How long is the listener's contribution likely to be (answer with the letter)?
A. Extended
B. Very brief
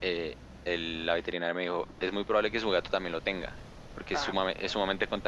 B